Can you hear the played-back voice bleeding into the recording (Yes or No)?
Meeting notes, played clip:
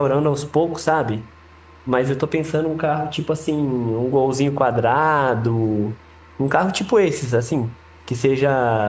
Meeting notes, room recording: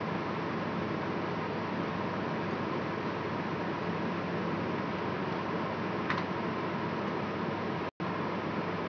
No